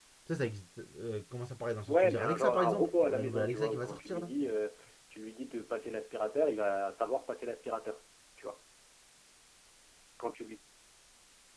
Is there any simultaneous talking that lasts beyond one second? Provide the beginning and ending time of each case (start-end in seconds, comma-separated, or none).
1.9-4.3